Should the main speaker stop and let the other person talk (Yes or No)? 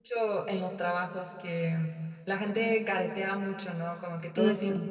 No